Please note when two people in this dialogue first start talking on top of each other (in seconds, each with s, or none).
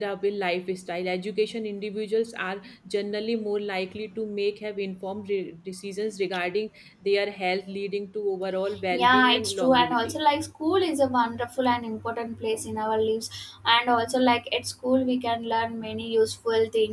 8.8 s